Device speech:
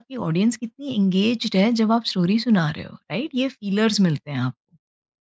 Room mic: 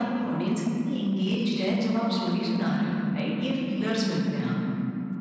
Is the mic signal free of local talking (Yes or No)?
Yes